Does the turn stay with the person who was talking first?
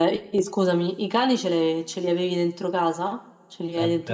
No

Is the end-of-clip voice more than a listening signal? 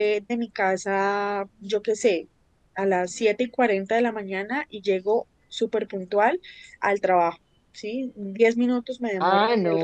Yes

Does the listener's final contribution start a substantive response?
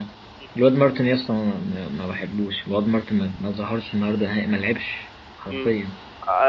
Yes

